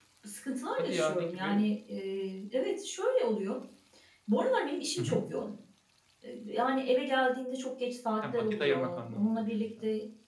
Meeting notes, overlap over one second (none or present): present